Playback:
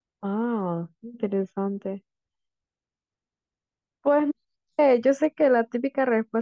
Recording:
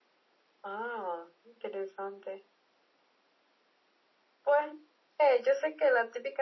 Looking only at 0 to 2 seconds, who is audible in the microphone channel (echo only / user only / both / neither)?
echo only